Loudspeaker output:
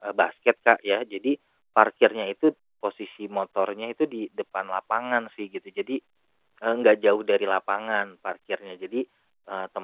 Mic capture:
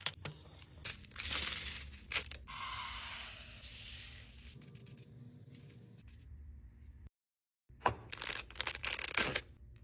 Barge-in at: none

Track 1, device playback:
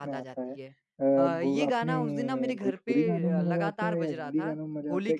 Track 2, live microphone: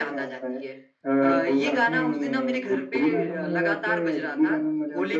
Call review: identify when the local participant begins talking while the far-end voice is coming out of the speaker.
none

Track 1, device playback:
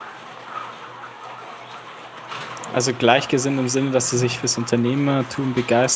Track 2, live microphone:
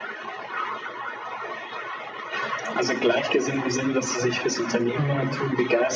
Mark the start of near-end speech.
5.0 s

